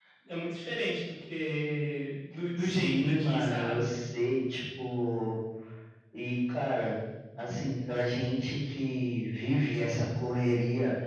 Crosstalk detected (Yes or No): Yes